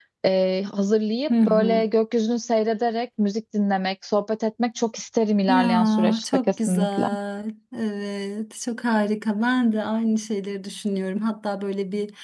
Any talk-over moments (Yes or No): Yes